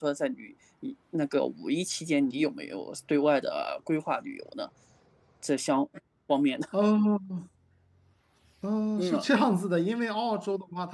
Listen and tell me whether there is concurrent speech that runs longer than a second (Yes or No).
No